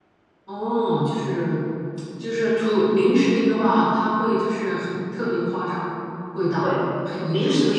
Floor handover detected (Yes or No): Yes